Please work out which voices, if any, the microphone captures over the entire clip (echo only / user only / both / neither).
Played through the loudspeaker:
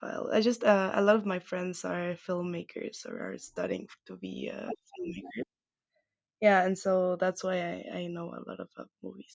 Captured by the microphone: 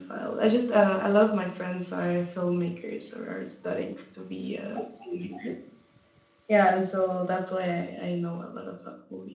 echo only